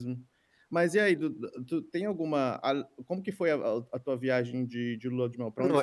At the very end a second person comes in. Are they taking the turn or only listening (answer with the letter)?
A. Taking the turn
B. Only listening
A